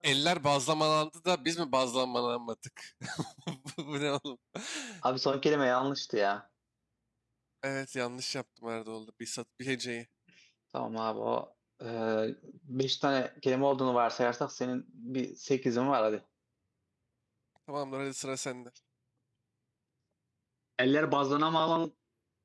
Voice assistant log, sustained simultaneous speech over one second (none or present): none